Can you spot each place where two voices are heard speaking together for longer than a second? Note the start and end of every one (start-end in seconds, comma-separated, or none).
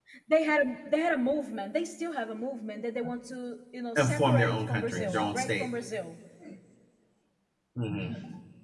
4.0-5.7